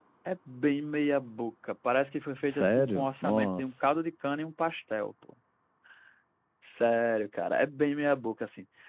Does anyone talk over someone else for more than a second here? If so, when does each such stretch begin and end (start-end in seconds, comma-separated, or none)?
2.5-3.8